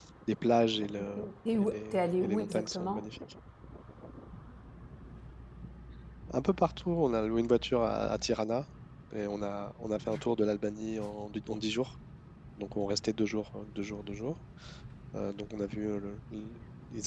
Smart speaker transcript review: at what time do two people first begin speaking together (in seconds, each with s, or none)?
1.0 s